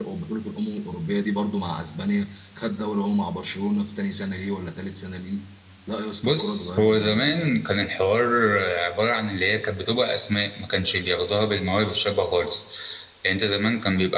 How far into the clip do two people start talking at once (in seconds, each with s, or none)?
6.2 s